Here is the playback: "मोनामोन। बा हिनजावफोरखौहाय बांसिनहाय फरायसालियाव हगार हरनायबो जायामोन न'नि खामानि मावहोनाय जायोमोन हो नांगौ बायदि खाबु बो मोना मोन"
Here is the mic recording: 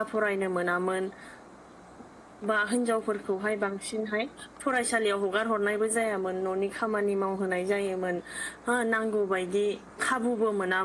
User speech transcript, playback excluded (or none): none